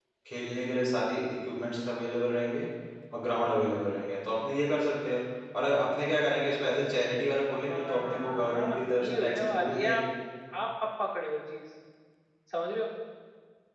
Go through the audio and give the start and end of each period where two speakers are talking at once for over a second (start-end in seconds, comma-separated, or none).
7.7-10.0